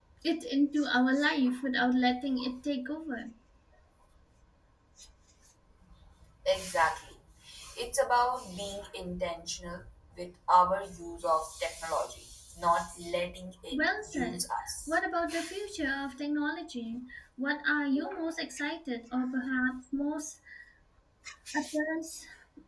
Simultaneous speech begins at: 13.7 s

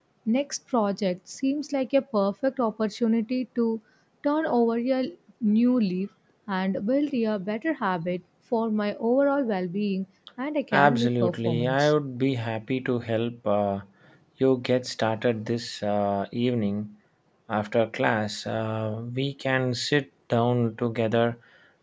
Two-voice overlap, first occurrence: 10.7 s

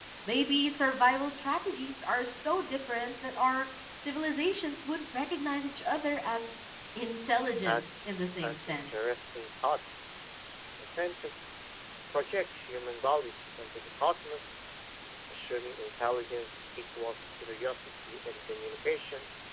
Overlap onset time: 7.6 s

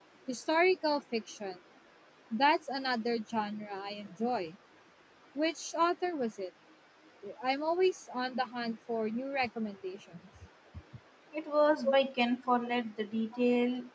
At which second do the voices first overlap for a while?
none

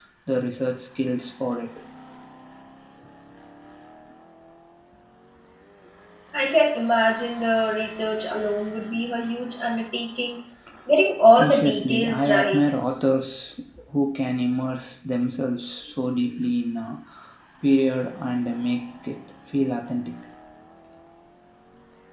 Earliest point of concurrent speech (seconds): 11.3 s

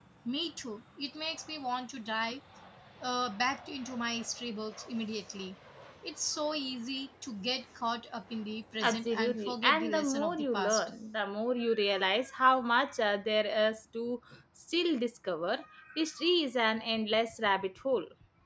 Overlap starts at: 8.8 s

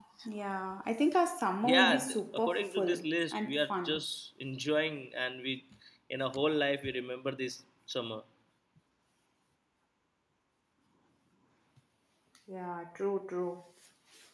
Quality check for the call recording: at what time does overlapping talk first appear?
1.6 s

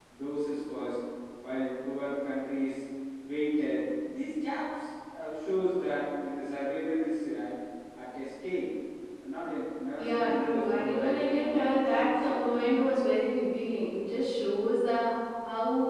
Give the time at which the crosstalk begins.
10.0 s

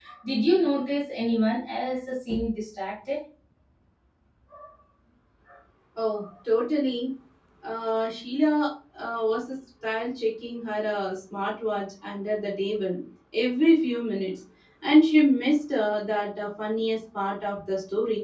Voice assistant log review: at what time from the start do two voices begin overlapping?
none

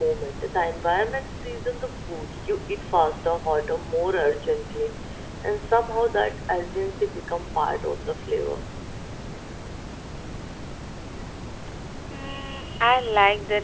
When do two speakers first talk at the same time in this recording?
none

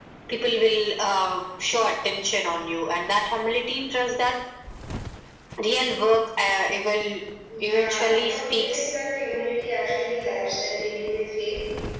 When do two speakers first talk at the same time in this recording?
7.6 s

